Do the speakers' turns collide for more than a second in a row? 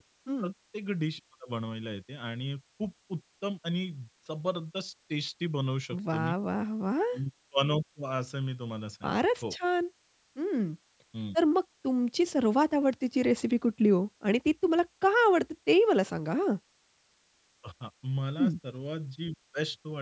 No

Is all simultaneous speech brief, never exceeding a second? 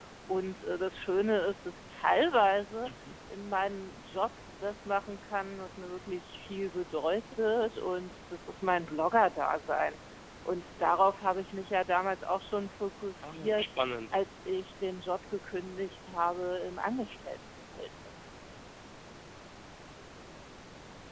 Yes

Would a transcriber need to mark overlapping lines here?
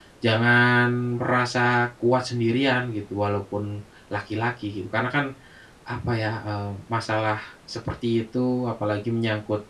No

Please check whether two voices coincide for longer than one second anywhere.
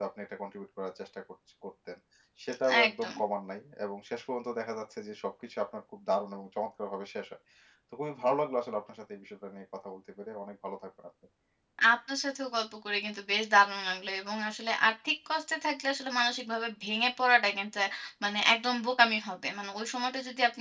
No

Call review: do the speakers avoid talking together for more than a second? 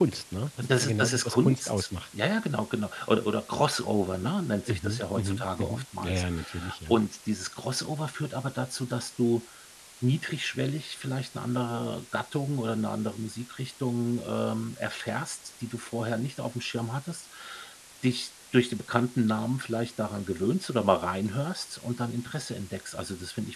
No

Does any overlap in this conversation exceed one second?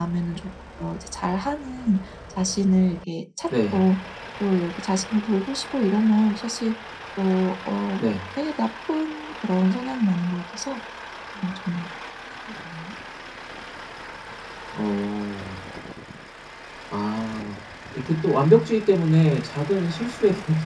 No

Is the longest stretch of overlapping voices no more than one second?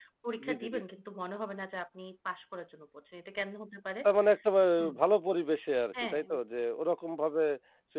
Yes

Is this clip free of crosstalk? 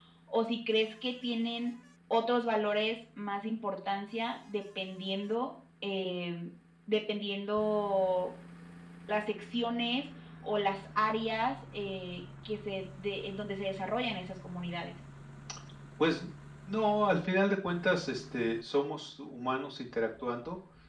Yes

